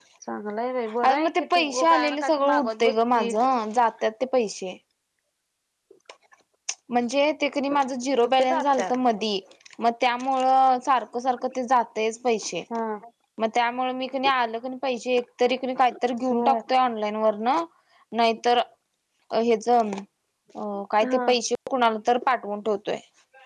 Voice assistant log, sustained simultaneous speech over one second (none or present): present